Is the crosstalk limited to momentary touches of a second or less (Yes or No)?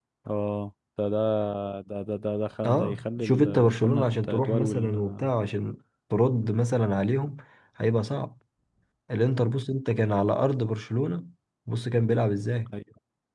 No